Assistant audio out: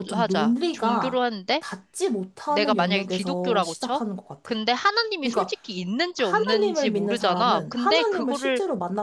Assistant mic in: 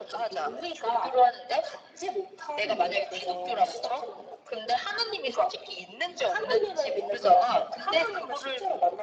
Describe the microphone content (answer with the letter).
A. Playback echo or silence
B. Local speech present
A